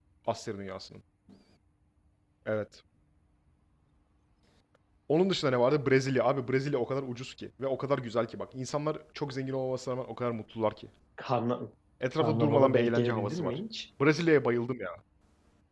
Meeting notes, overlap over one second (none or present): present